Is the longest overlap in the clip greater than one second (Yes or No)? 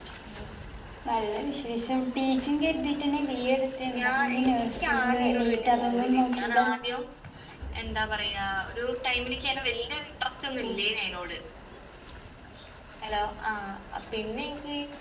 Yes